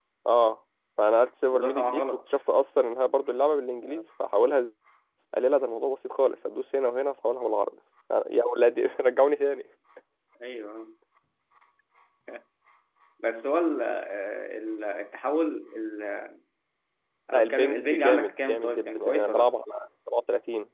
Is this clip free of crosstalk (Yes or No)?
No